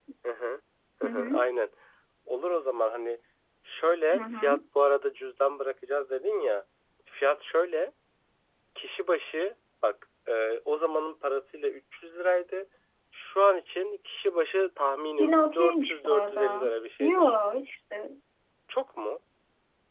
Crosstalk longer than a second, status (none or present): present